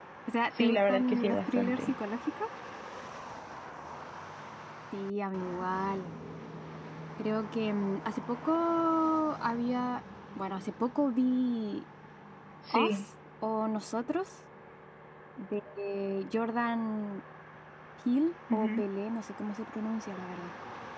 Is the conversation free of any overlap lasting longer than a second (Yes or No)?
No